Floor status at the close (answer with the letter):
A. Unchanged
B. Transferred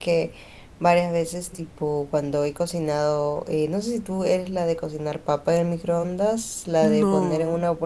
A